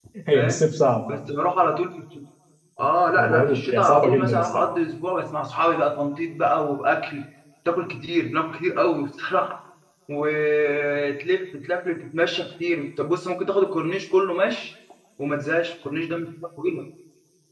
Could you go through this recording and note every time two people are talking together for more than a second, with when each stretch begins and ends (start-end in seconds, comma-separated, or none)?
3.1-4.7